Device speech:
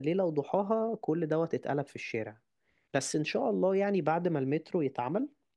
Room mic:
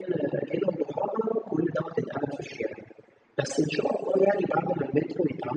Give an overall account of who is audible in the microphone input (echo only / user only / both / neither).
echo only